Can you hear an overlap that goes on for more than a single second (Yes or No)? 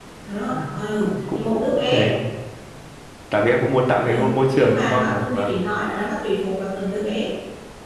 Yes